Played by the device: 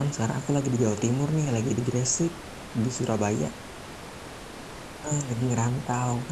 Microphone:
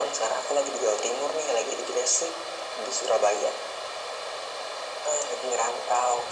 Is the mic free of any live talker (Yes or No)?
Yes